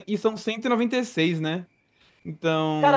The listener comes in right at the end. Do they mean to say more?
Yes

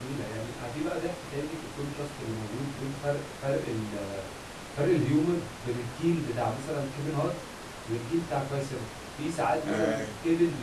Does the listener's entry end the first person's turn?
No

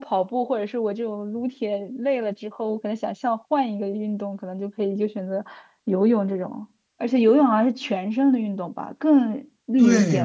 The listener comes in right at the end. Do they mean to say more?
Yes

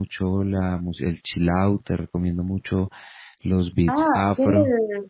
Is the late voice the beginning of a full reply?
Yes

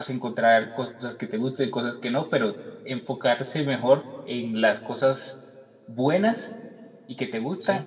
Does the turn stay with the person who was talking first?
Yes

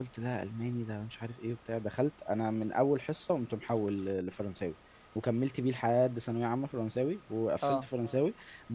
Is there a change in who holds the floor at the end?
No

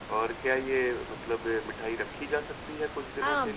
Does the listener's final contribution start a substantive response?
Yes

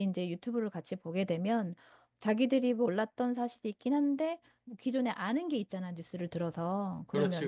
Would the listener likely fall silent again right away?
Yes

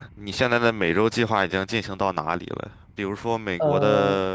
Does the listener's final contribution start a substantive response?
No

